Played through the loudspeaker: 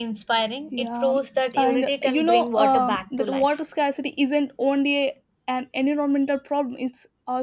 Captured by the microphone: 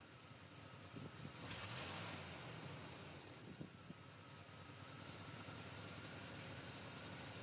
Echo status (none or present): none